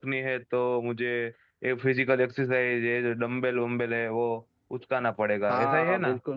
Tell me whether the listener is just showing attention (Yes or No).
No